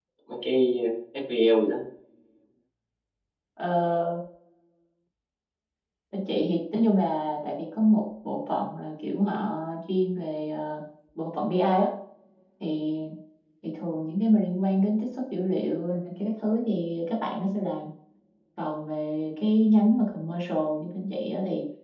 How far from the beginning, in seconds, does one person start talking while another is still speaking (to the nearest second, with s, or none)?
none